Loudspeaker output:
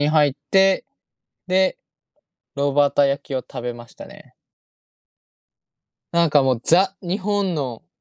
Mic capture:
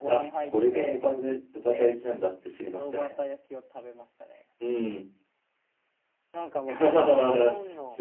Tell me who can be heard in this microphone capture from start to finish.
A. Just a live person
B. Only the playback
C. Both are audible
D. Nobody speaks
C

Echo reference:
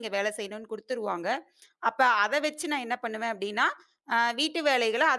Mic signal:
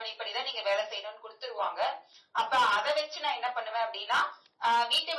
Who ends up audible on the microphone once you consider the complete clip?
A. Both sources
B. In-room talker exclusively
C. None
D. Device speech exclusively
D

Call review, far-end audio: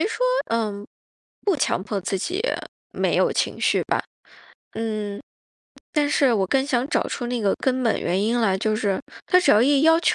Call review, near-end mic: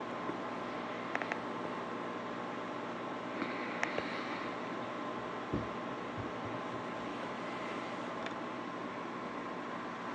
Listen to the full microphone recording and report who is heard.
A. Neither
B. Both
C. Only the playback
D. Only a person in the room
A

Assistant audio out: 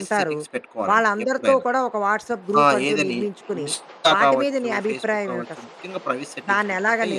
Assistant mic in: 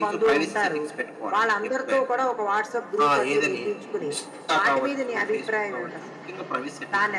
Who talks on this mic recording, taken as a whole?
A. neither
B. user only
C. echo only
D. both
C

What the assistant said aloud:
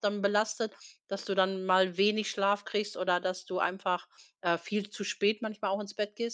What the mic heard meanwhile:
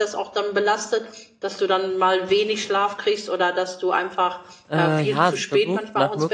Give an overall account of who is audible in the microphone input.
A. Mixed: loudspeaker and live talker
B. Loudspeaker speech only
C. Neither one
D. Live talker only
A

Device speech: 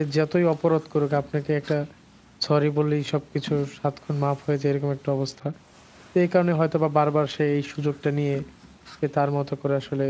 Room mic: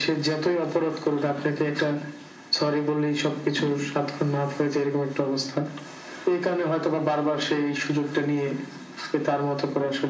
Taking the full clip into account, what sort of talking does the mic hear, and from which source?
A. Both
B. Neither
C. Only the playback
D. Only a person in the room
C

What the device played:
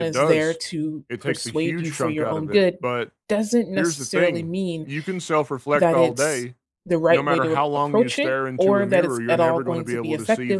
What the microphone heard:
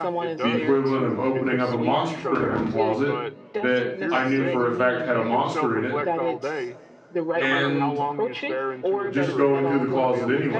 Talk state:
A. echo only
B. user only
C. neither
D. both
D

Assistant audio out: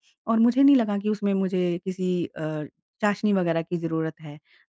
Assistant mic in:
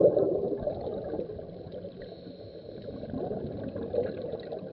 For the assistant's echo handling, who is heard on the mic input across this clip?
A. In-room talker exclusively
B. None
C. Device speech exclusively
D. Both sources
B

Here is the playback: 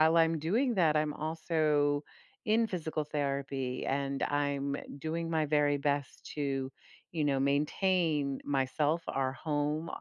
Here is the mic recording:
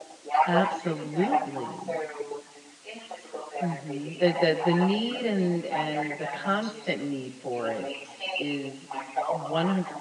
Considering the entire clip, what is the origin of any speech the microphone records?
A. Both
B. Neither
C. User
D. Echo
A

